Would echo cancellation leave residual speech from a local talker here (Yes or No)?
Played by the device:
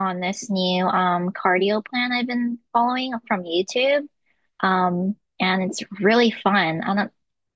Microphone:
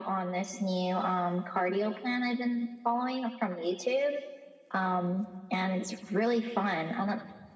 No